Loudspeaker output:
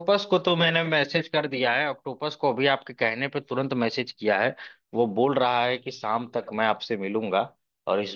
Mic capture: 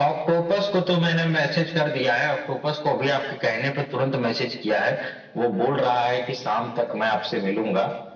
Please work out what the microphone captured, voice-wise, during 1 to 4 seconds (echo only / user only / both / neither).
echo only